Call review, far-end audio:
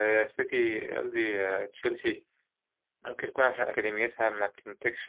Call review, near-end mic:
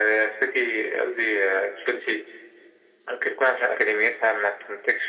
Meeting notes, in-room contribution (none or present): none